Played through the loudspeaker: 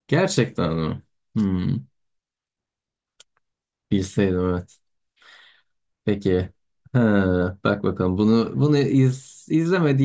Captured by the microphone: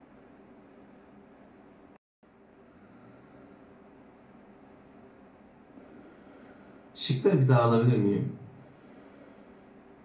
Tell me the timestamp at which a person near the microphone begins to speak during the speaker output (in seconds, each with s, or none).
6.9 s